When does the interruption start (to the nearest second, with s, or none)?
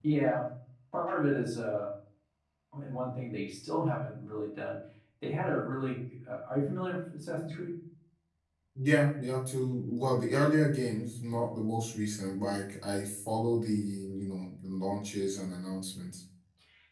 none